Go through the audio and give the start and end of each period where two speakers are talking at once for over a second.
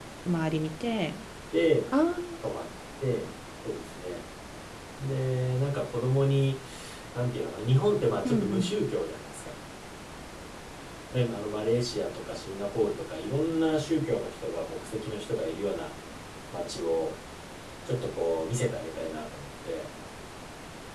none

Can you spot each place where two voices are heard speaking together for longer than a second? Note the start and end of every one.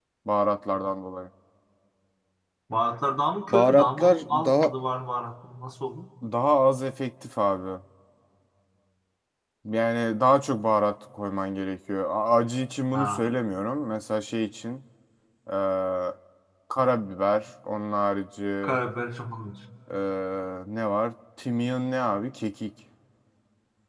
3.5-4.7

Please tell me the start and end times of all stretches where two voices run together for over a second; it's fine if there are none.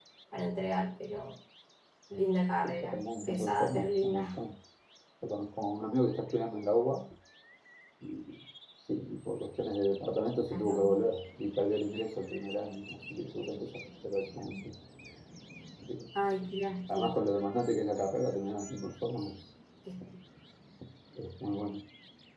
2.9-4.3

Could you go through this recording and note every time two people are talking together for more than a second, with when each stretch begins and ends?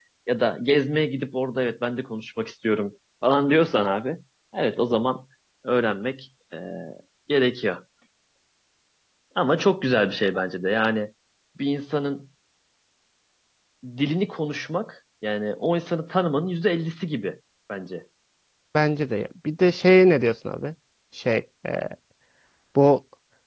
none

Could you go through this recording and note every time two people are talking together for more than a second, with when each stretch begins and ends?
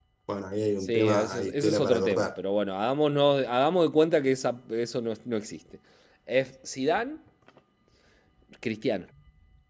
0.8-2.3

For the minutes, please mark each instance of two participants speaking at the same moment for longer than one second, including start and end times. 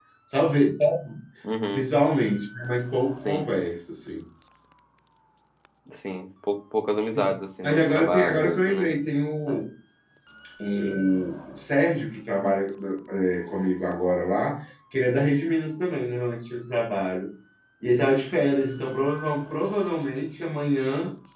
7.6-8.9

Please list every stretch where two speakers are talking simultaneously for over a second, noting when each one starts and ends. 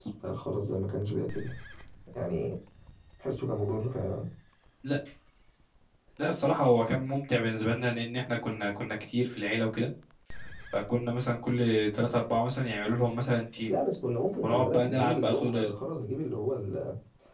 14.4-15.7

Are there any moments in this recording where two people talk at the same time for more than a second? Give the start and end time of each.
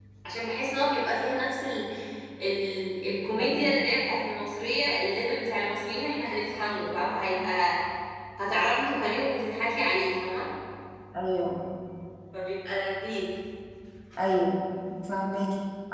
none

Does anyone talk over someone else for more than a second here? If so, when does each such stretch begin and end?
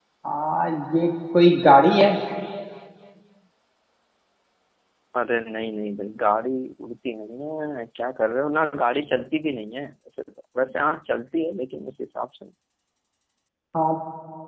none

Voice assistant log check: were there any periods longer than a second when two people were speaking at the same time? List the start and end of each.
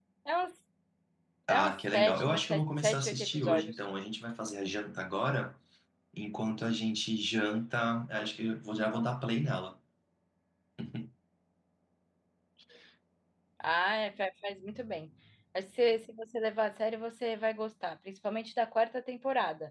1.5-3.8

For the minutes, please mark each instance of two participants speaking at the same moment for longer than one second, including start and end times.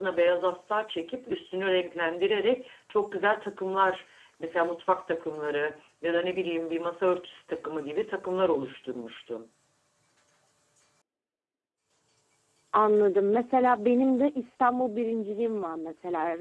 none

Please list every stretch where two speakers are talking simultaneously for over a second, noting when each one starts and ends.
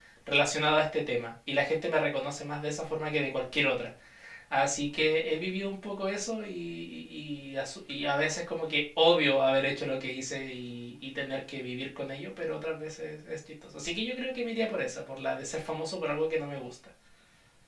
none

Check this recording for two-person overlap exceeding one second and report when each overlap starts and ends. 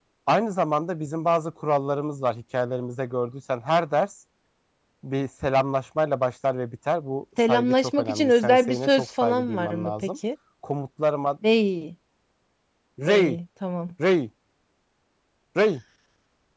7.4-10.1

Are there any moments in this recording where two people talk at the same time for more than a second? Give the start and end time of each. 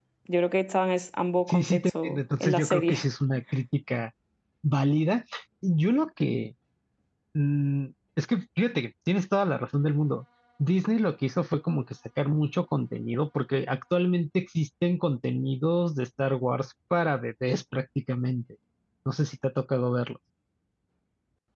1.5-3.0

